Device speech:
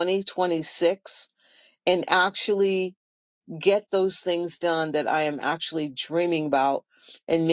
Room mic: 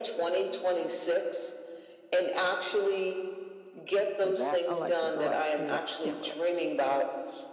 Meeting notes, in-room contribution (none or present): present